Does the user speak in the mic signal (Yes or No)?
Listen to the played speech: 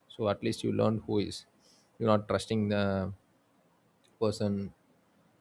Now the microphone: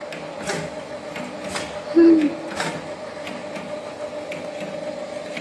Yes